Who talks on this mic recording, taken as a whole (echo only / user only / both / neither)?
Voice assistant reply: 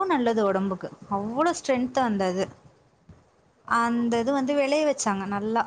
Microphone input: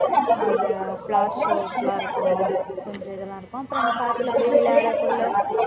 both